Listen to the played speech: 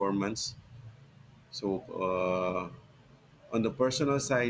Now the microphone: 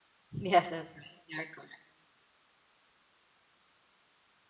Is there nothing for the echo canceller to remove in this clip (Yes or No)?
Yes